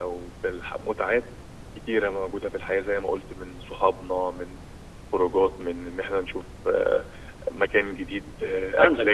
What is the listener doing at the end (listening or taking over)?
taking over